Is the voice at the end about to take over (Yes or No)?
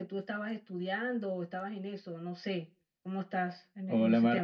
Yes